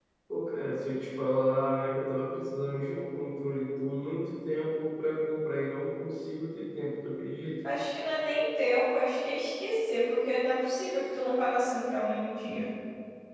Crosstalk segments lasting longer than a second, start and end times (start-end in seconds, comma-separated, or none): none